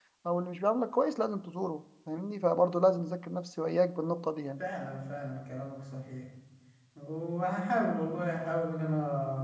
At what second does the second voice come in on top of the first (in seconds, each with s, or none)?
none